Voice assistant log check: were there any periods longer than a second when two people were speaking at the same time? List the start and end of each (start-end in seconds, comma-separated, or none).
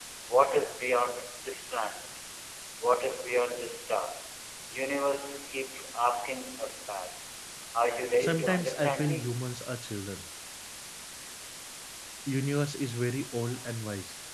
8.2-9.4